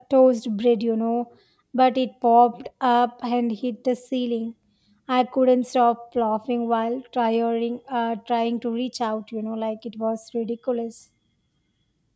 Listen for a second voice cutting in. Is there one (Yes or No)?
No